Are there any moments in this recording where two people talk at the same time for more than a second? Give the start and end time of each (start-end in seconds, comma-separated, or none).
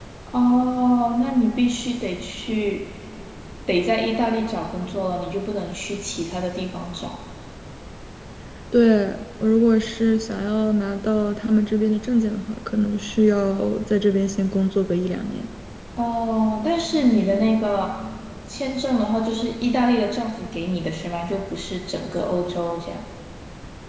none